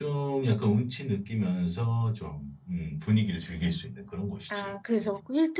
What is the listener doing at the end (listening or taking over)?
taking over